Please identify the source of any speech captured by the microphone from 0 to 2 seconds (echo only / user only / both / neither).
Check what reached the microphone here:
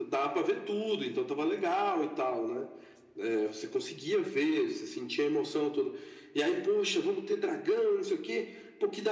echo only